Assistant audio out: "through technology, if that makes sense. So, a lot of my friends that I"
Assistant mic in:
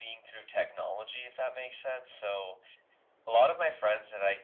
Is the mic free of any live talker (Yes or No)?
Yes